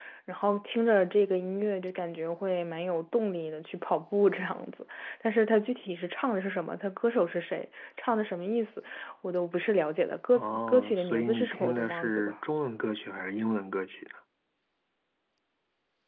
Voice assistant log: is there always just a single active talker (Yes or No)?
No